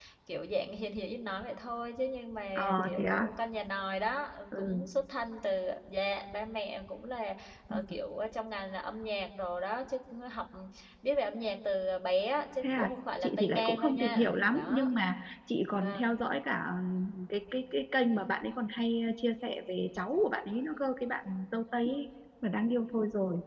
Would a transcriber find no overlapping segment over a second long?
No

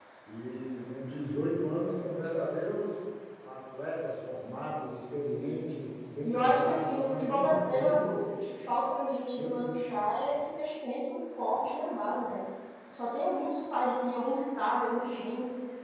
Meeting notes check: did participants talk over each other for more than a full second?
Yes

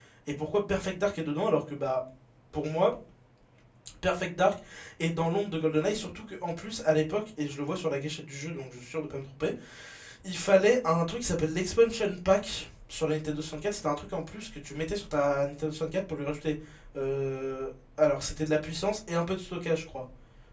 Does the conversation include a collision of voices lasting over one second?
No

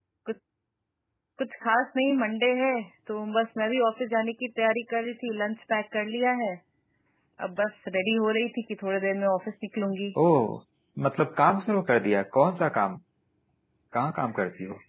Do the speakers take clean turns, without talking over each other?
Yes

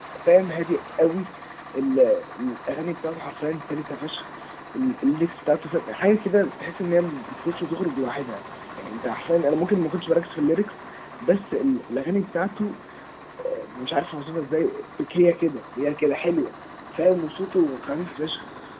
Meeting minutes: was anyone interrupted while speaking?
No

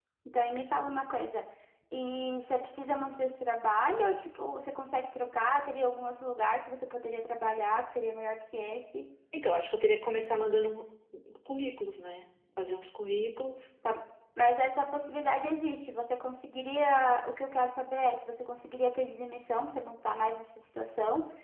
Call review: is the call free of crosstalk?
Yes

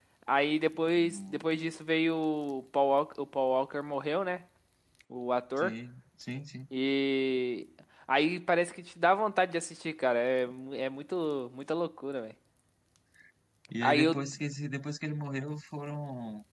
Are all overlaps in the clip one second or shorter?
Yes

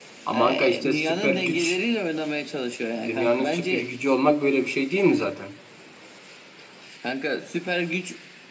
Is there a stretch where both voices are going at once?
Yes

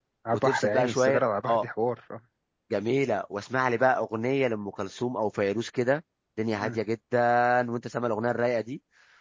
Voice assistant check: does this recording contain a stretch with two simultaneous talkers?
Yes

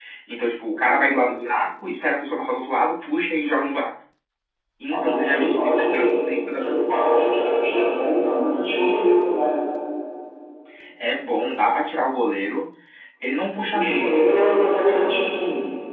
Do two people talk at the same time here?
Yes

